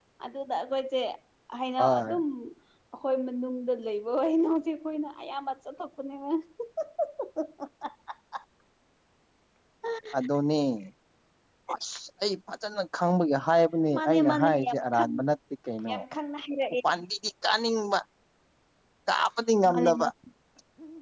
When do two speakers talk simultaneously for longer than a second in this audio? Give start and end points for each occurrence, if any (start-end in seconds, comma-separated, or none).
14.0-15.2